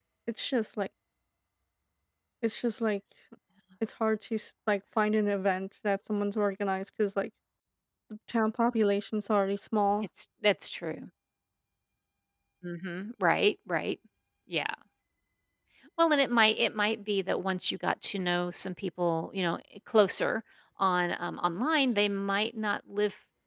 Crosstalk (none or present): none